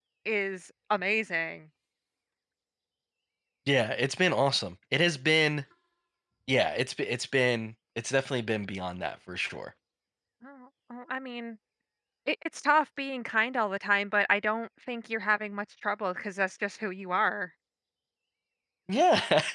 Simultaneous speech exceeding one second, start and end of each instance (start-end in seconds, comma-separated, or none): none